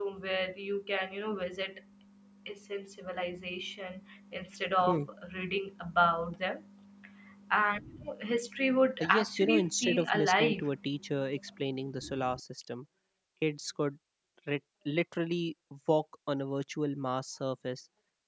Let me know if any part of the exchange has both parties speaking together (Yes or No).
Yes